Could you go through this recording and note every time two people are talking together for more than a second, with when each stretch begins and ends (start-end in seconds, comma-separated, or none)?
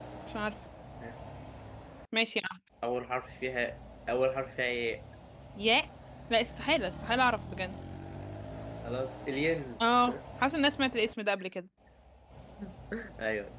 none